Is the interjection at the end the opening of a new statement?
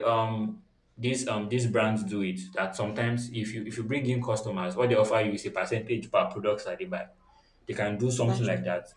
No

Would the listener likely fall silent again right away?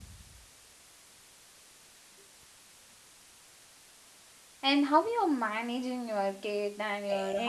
No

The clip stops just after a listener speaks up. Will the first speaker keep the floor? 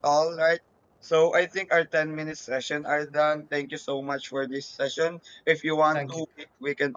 Yes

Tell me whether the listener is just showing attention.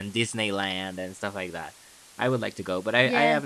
Yes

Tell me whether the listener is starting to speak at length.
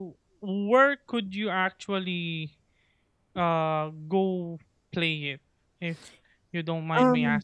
Yes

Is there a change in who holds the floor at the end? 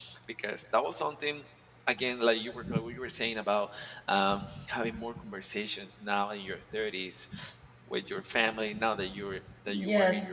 No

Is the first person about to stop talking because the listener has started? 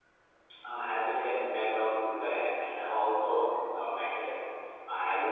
No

